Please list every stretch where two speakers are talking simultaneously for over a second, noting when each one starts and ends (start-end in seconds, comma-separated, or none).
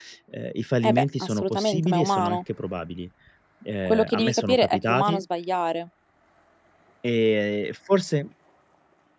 0.8-2.4, 3.9-5.2